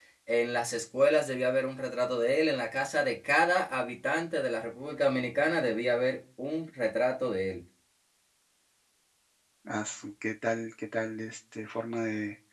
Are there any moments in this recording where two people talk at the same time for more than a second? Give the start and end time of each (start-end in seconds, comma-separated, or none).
none